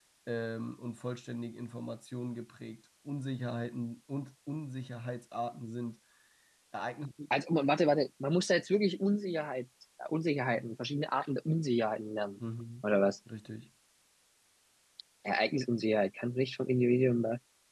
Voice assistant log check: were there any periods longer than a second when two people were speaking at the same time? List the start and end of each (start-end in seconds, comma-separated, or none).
none